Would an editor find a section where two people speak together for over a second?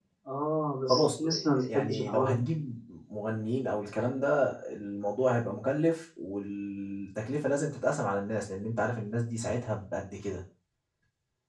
Yes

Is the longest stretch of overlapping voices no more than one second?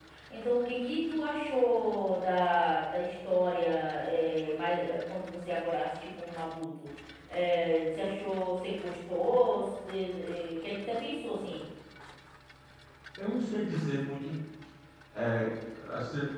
Yes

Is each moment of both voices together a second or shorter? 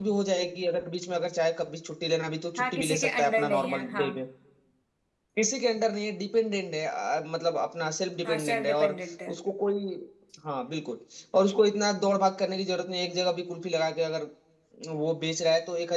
No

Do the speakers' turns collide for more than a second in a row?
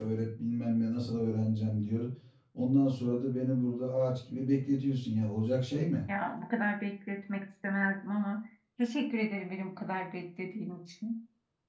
No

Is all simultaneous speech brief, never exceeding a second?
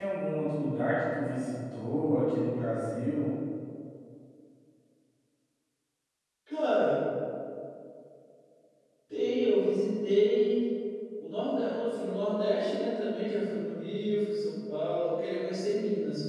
Yes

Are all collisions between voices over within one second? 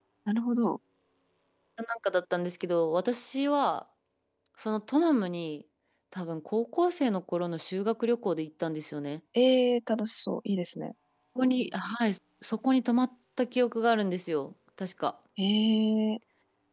Yes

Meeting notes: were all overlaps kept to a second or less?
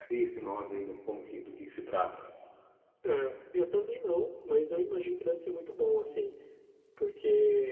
Yes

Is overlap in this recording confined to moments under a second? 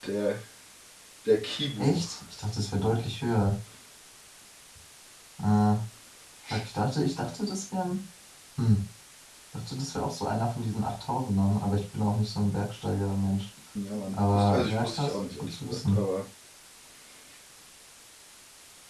No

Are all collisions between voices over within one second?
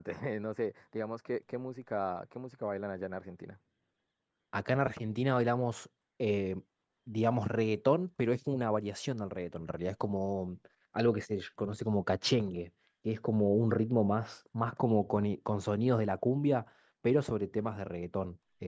Yes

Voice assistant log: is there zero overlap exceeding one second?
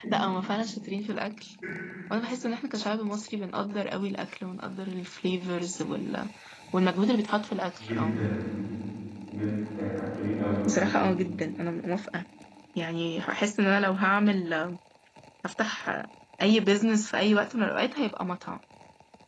Yes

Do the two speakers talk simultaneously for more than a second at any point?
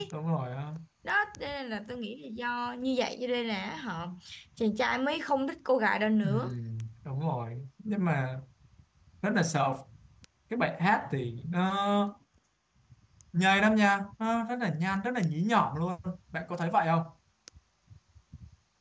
No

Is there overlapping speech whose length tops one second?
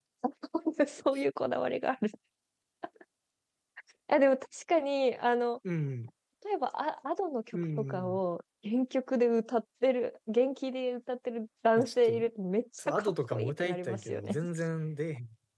Yes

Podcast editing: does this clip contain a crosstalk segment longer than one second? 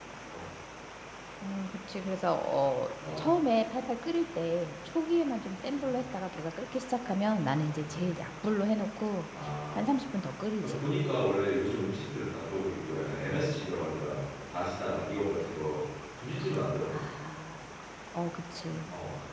No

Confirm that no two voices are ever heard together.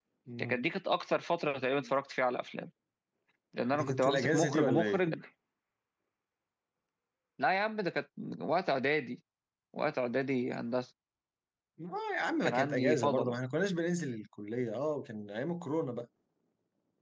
No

